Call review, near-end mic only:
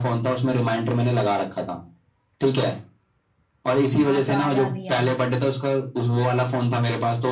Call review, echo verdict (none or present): present